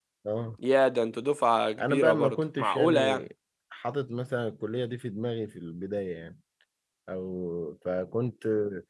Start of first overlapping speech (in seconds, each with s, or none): 1.8 s